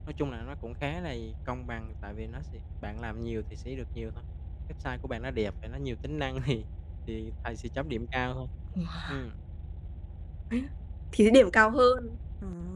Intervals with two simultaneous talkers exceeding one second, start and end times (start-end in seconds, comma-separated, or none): none